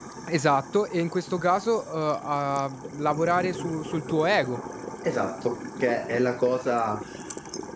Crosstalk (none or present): none